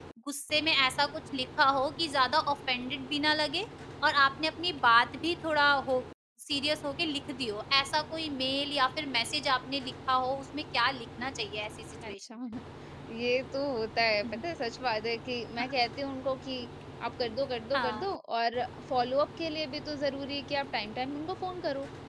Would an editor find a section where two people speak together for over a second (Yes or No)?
No